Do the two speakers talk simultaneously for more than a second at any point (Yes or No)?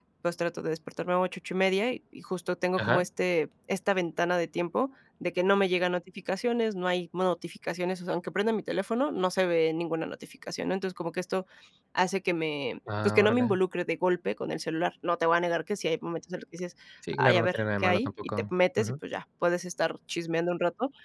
Yes